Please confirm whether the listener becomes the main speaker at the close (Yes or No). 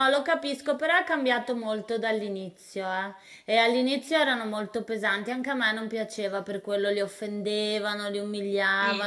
No